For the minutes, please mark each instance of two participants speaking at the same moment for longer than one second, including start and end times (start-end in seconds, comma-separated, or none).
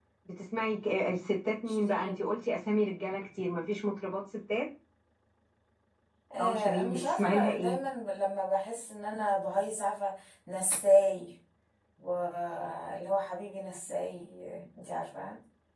6.4-7.8